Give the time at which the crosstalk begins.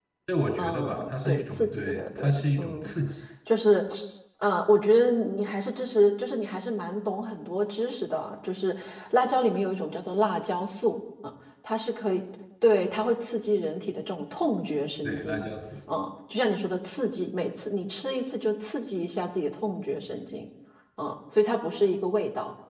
0.6 s

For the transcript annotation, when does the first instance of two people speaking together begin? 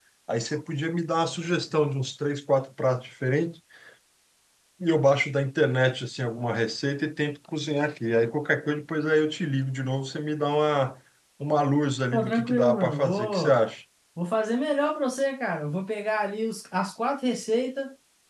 12.1 s

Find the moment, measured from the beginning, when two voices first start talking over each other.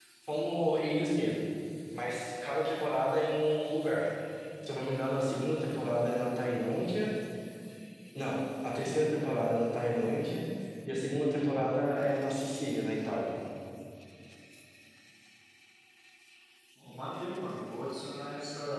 none

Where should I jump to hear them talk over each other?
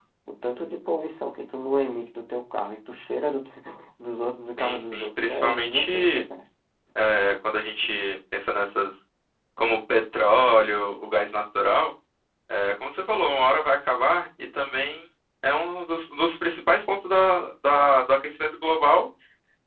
4.6 s

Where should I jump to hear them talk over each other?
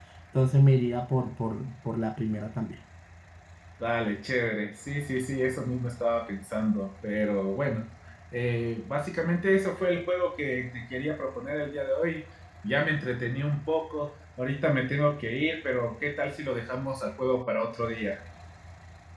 none

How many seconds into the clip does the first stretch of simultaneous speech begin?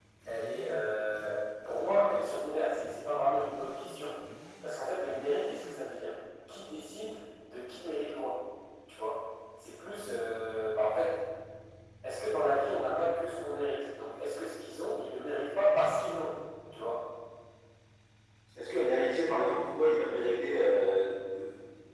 none

